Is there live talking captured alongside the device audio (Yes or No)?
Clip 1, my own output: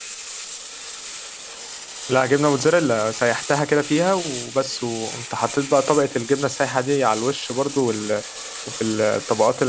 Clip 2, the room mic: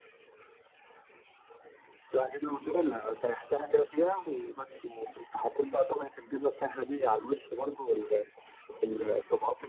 No